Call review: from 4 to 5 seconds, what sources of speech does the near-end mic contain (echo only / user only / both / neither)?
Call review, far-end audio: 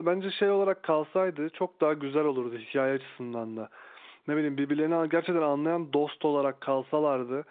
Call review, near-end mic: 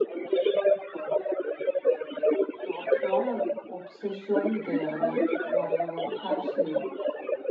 both